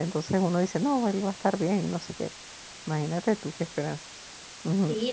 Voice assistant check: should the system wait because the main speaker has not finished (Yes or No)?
No